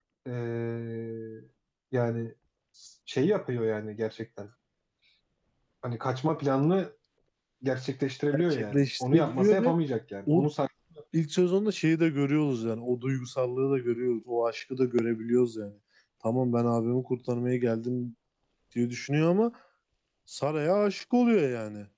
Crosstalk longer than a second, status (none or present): present